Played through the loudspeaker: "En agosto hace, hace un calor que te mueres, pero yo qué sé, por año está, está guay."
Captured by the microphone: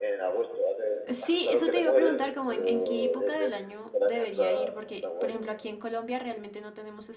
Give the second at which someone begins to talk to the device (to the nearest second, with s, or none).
1 s